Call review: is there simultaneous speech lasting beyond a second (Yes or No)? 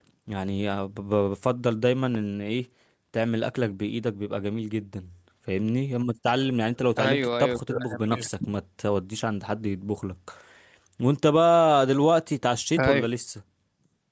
Yes